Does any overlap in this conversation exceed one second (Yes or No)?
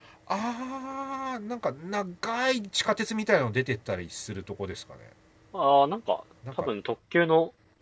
No